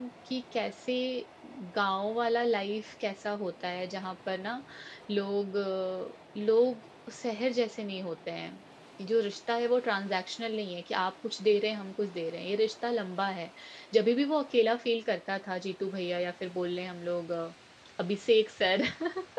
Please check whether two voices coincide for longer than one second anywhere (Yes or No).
No